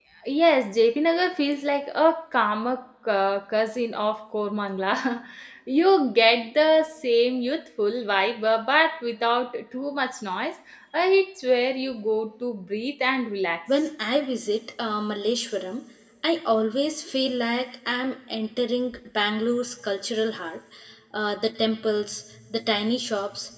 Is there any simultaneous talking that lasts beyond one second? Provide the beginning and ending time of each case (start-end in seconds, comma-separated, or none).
none